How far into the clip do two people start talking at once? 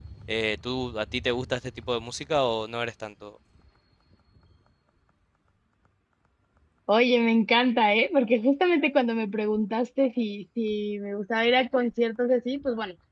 none

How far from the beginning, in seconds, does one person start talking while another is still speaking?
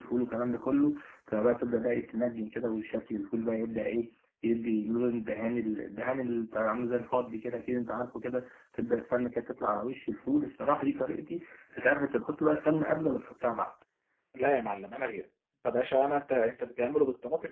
none

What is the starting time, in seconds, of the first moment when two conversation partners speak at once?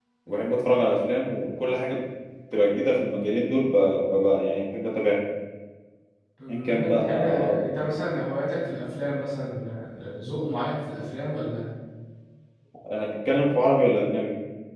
6.5 s

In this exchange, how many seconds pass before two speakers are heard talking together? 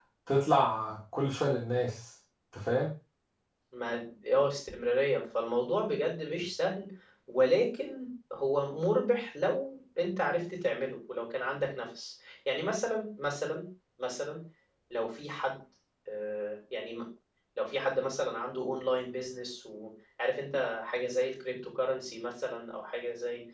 none

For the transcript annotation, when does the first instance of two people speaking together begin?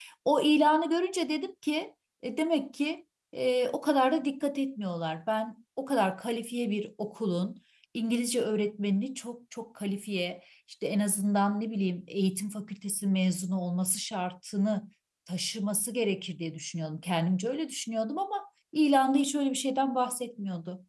none

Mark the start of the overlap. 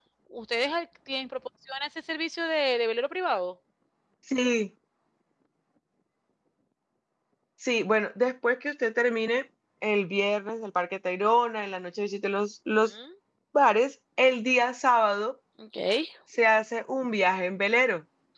none

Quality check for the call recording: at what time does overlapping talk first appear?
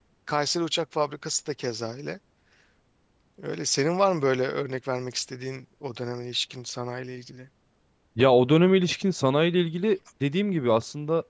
none

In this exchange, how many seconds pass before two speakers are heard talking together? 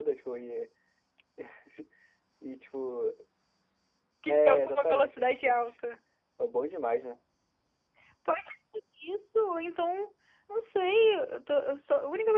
4.3 s

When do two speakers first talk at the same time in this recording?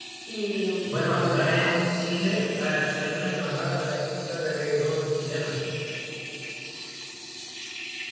0.8 s

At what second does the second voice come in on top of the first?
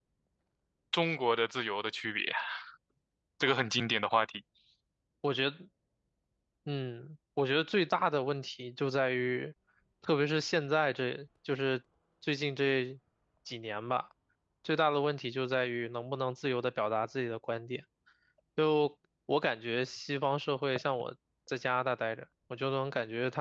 none

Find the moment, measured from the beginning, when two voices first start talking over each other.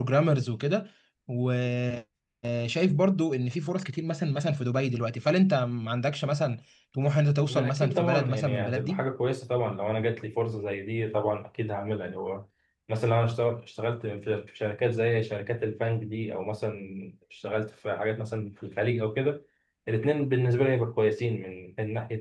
7.5 s

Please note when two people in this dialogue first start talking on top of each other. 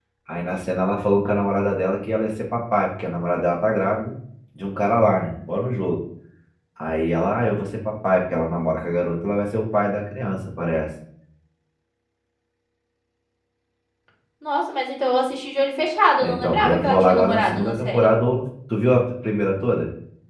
16.2 s

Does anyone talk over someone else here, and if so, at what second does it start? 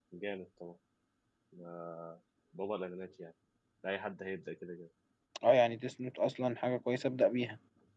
none

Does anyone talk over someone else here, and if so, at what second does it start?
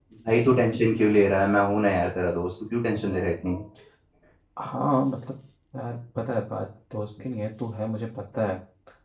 none

